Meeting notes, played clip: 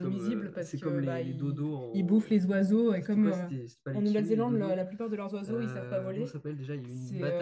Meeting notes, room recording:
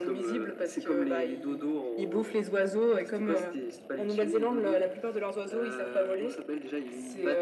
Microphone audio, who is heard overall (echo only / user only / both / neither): echo only